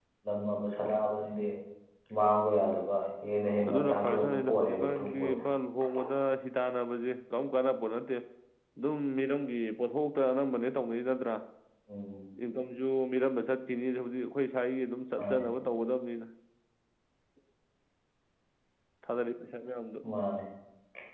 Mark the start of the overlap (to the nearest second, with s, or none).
4 s